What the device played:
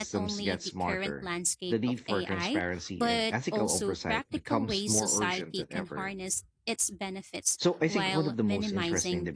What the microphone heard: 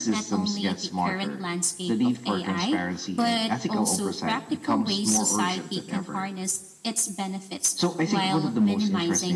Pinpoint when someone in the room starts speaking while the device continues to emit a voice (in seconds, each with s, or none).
none